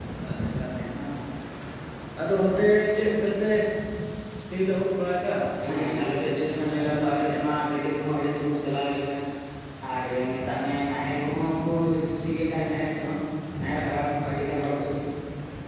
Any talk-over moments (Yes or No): Yes